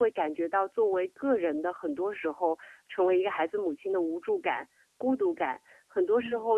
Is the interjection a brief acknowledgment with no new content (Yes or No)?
Yes